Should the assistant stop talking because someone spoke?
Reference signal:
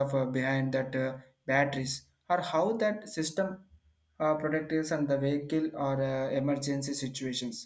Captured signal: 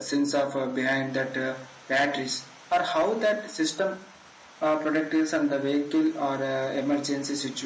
No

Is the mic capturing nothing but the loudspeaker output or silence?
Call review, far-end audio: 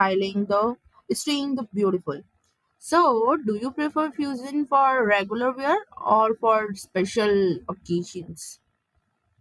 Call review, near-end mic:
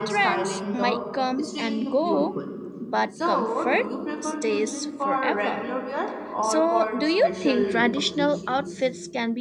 No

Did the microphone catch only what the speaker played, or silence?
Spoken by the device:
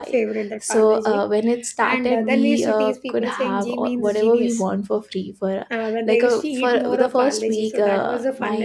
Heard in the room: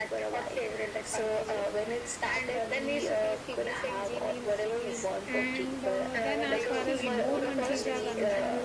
No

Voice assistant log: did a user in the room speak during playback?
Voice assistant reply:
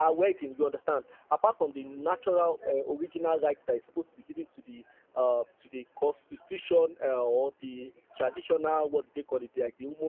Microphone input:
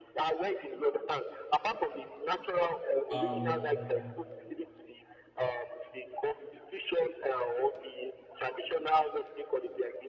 Yes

